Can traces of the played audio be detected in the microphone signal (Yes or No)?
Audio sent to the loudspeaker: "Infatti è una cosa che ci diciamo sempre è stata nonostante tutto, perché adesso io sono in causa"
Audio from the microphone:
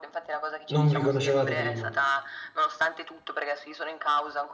Yes